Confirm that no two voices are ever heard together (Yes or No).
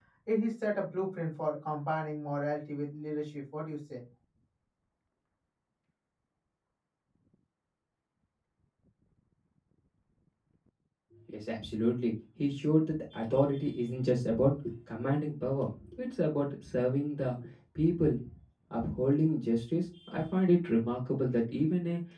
Yes